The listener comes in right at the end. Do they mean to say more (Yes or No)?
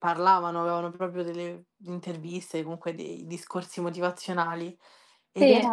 No